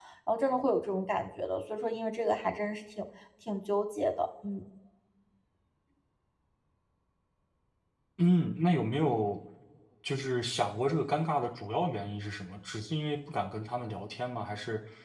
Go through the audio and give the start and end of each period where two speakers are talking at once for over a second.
none

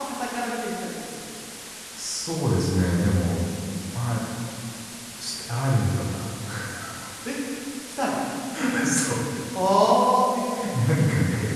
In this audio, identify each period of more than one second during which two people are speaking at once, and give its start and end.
none

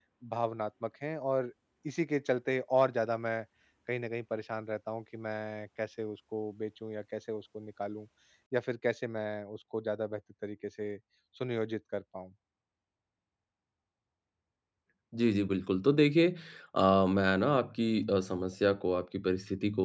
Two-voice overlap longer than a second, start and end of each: none

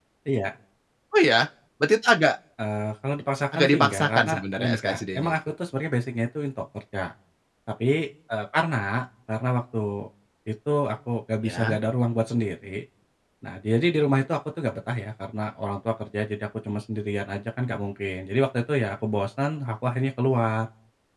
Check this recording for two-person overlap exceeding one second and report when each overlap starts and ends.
3.5-5.3

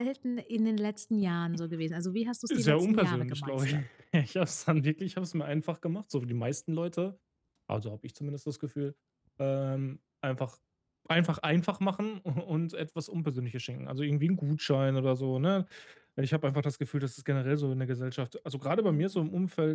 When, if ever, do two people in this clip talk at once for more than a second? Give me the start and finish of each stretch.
2.5-3.8

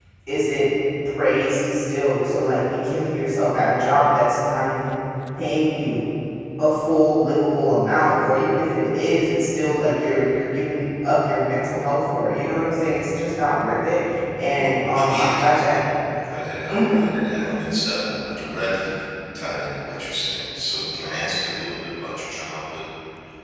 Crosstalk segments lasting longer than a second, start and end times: 14.6-15.8

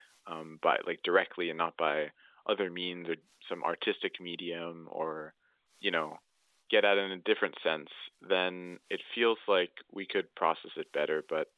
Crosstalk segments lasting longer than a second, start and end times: none

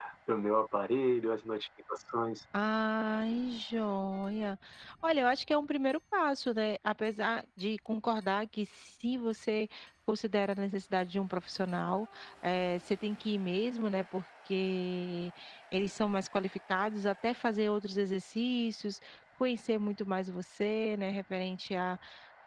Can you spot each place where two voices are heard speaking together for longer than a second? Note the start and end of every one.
none

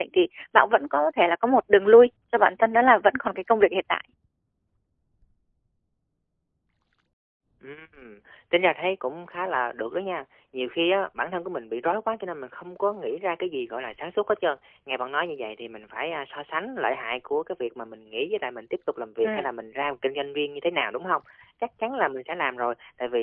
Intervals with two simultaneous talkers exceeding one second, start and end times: none

